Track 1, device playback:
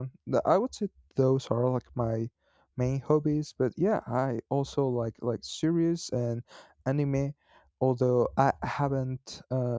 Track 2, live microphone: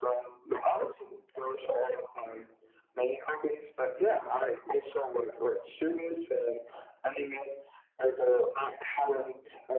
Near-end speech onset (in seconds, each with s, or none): none